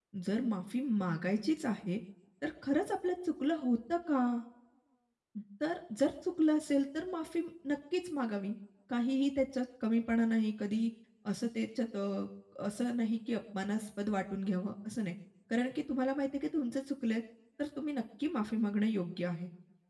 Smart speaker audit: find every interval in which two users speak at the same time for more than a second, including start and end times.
none

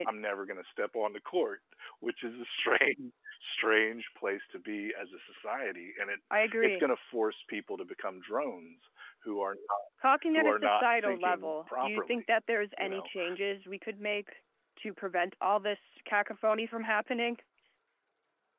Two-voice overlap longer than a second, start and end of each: 10.3-12.2

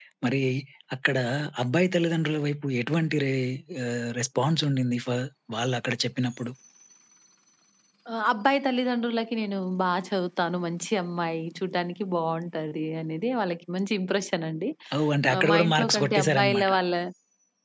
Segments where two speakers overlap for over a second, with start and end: 15.3-16.7

